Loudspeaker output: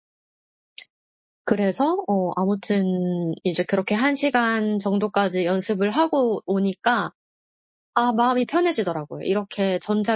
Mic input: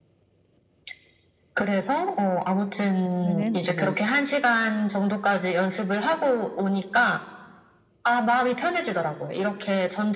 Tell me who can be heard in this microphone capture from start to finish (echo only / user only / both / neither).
both